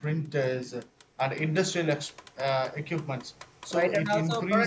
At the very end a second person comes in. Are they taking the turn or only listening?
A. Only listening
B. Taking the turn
B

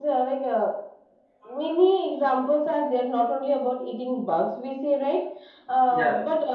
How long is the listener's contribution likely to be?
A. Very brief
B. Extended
A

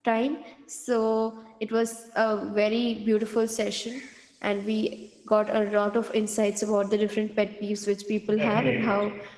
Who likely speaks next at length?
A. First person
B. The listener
A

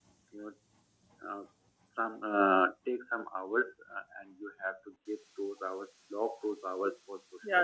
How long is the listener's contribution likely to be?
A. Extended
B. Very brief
A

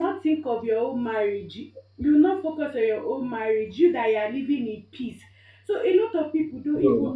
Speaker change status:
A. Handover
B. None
B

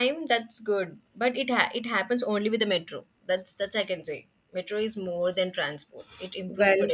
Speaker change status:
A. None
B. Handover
A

